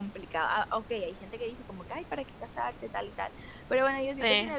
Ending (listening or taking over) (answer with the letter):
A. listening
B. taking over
A